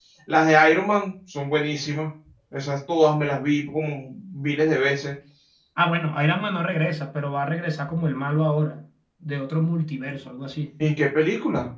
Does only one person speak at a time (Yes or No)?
Yes